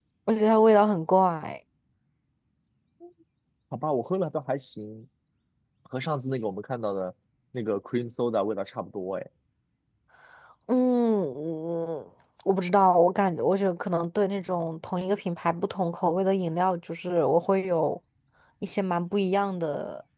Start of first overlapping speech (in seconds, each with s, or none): none